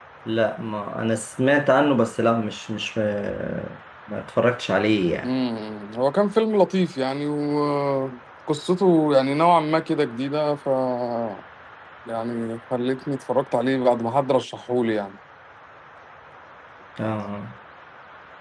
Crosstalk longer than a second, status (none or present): none